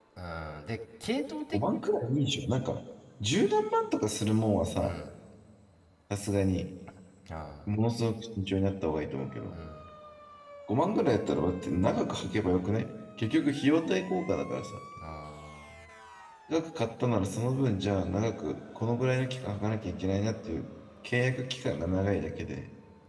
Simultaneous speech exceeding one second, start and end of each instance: none

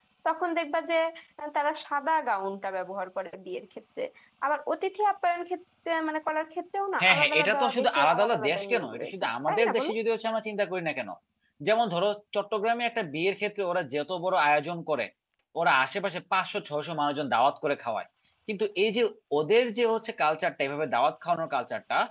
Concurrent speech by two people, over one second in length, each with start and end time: 7.0-9.9

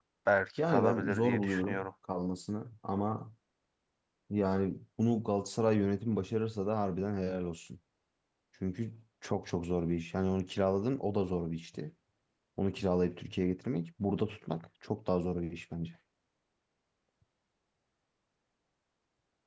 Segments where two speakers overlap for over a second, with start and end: 0.6-1.9

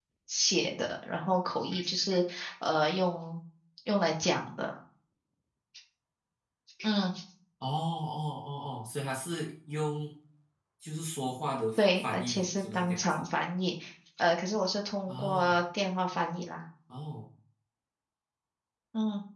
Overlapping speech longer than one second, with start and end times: 11.8-13.2

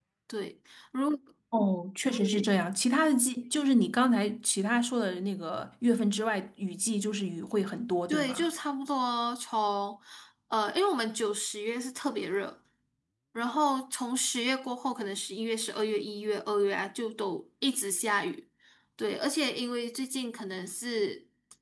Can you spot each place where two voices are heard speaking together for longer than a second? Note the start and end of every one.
none

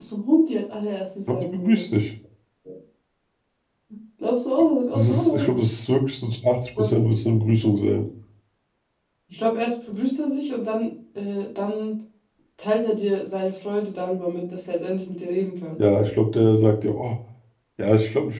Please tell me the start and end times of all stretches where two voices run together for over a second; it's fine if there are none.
none

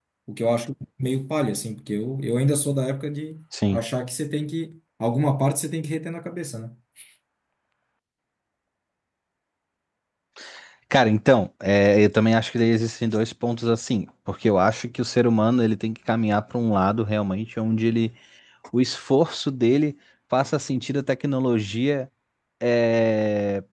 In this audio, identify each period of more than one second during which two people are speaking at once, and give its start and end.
none

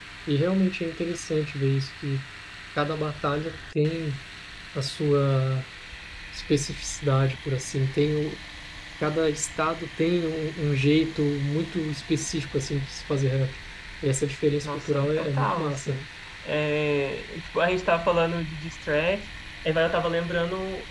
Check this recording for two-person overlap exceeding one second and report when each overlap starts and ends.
14.6-16.0

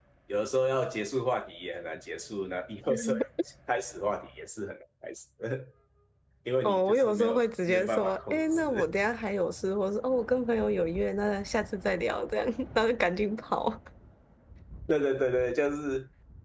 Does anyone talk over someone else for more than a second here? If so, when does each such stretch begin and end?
6.6-8.9

